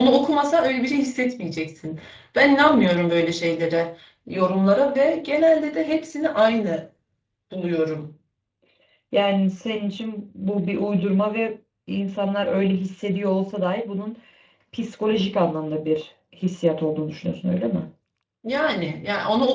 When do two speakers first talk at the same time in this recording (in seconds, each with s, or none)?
none